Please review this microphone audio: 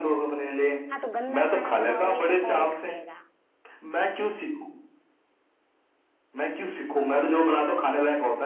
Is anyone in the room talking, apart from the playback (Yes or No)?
Yes